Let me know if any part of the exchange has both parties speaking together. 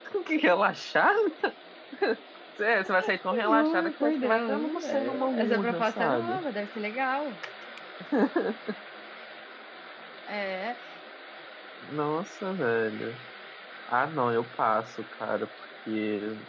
Yes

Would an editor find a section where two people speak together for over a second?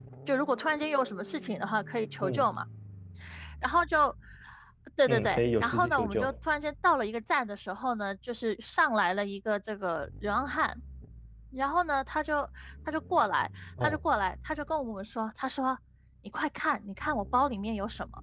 Yes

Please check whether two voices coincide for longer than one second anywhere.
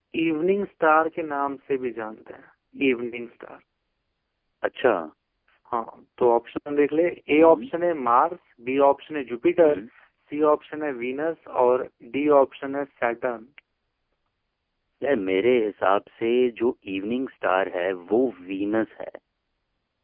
No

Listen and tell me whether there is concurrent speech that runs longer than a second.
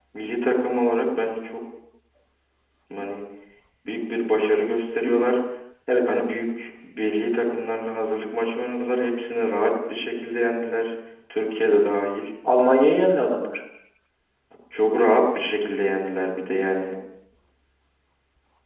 No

